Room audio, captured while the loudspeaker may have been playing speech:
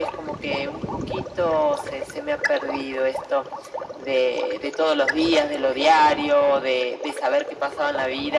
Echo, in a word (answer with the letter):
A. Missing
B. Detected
B